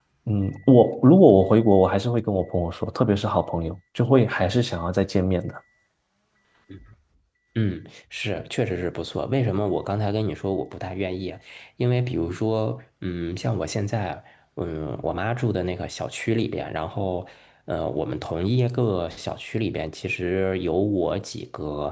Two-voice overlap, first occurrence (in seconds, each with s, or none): none